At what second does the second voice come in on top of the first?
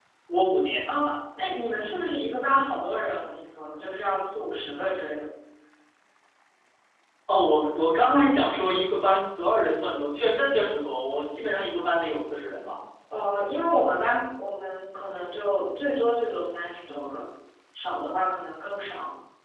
none

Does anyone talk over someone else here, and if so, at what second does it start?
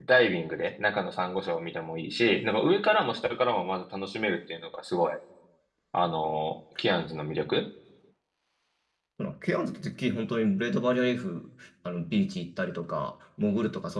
none

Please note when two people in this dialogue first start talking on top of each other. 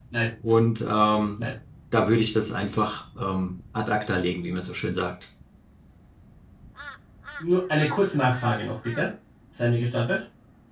none

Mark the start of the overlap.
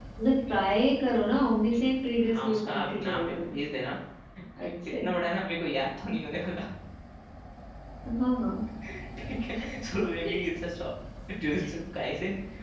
2.3 s

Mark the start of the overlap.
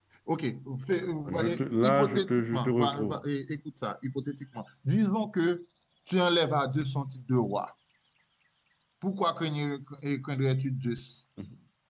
1.3 s

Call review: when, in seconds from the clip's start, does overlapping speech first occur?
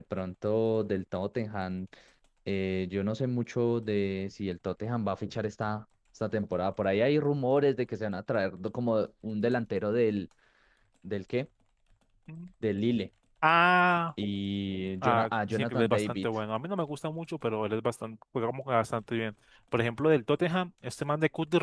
15.0 s

